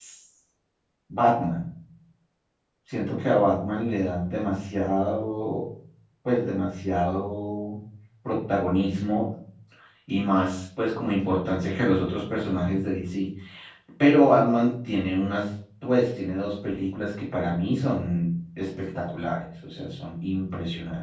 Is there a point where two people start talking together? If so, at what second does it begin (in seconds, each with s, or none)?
none